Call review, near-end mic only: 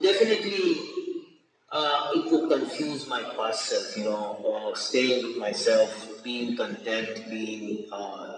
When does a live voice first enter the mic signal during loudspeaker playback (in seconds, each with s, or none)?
none